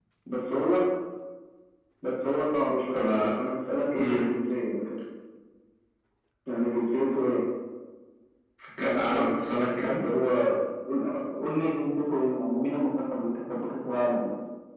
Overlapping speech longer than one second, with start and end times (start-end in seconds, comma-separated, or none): 8.8-10.0